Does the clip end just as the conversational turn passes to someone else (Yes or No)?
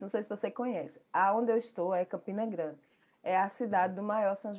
No